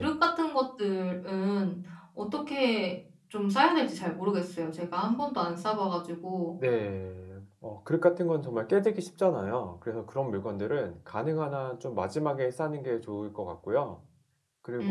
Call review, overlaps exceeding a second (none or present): none